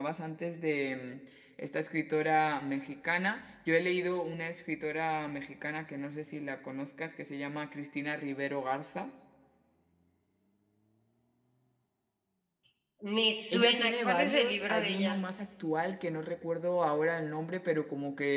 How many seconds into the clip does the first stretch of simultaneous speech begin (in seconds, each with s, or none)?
13.5 s